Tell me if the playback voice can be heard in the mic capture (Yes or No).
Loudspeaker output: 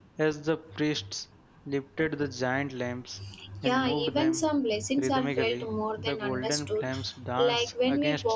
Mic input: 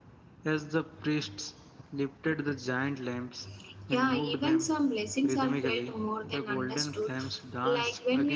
Yes